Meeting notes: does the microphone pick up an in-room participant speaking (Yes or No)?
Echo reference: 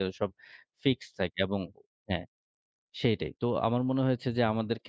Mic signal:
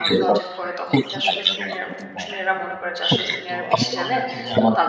Yes